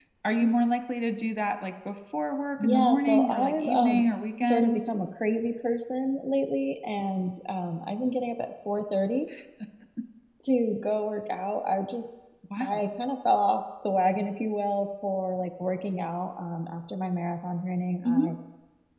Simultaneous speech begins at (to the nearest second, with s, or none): 3 s